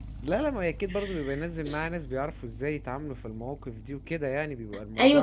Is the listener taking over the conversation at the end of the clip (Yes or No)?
Yes